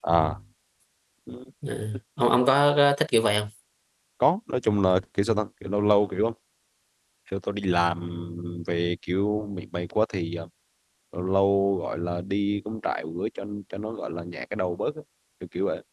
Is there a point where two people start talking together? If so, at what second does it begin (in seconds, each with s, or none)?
none